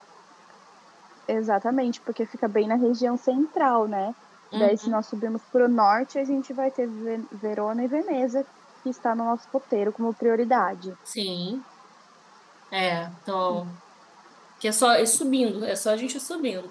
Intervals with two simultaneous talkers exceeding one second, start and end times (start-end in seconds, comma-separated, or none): none